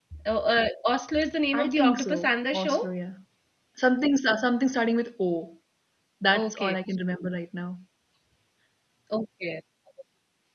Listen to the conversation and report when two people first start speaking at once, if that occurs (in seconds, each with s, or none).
1.5 s